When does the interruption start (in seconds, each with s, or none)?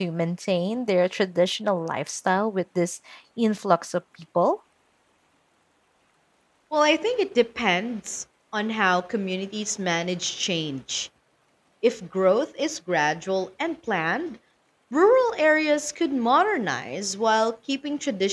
none